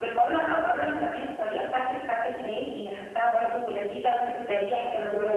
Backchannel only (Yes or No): No